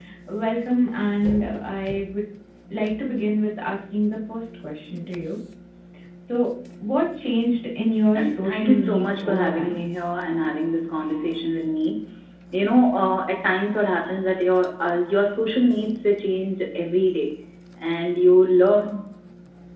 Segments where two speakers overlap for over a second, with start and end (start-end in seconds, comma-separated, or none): 8.2-9.9